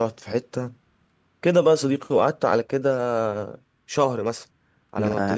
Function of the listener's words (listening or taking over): listening